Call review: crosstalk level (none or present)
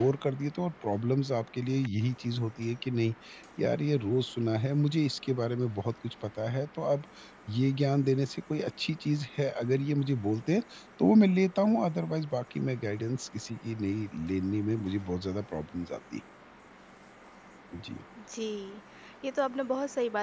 none